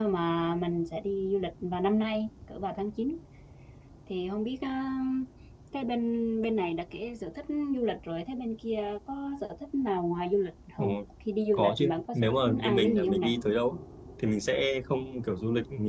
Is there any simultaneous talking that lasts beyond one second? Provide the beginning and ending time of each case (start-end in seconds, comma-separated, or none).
11.5-13.3